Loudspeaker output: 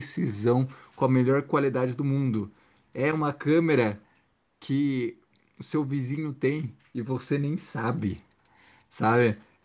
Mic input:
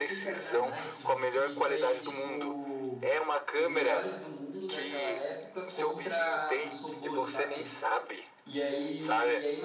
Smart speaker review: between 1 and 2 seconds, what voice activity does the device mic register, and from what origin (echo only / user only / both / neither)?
both